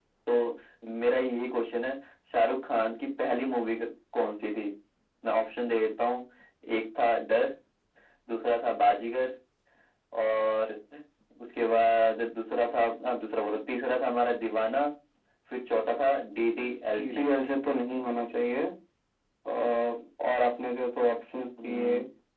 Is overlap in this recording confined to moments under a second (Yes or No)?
Yes